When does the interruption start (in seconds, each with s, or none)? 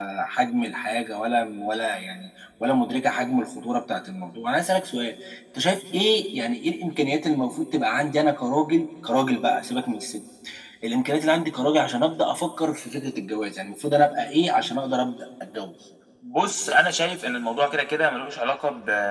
none